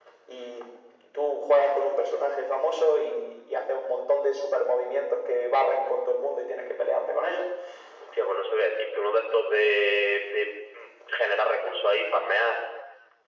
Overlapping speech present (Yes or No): No